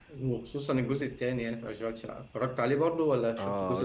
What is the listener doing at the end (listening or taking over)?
taking over